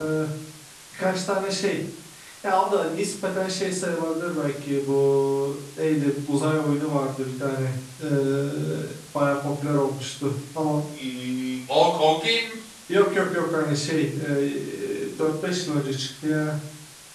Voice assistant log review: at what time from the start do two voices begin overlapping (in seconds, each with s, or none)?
none